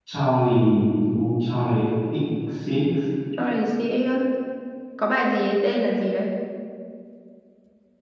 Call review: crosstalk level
none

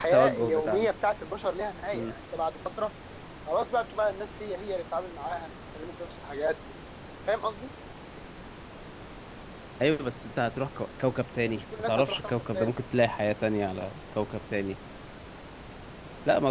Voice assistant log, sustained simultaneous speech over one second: present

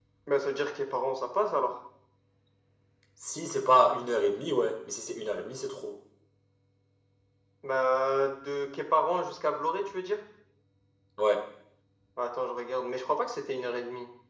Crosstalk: none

